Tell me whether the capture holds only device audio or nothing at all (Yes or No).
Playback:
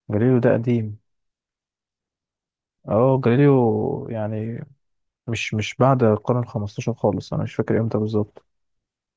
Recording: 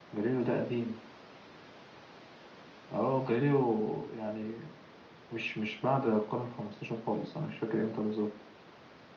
Yes